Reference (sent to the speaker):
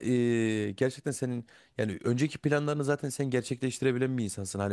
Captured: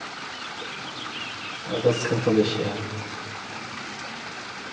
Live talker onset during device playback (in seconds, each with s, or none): 1.7 s